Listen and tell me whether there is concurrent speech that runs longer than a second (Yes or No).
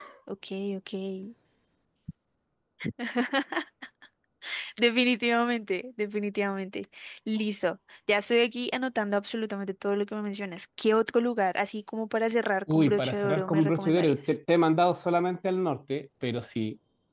Yes